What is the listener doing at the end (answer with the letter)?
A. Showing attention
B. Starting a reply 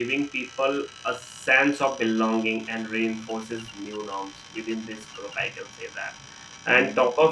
A